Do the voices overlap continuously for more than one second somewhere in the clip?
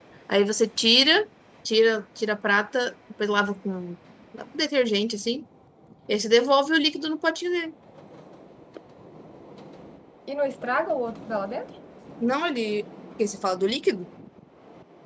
No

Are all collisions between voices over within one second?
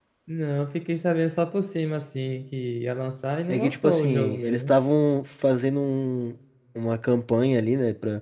No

